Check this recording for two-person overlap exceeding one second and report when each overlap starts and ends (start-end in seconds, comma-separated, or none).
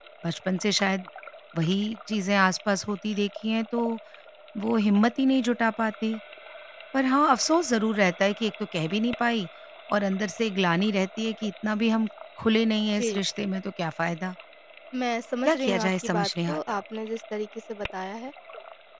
15.4-16.8